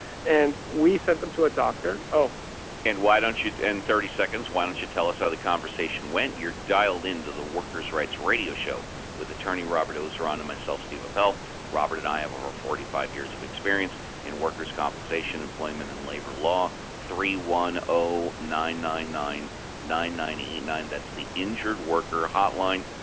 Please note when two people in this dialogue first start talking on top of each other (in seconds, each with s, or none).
none